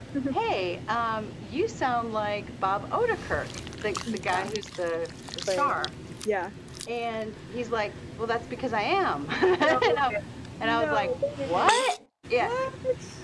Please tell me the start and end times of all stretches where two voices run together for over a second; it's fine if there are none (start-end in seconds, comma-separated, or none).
10.6-11.8